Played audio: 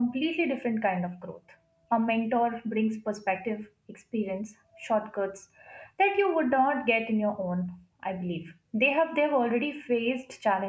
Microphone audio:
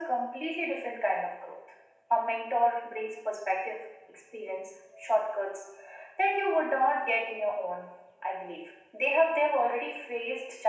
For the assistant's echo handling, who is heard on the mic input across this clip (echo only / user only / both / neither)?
echo only